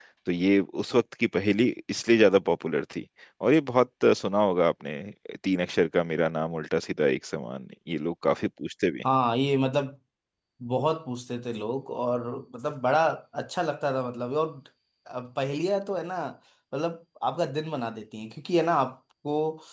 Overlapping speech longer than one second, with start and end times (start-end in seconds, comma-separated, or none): none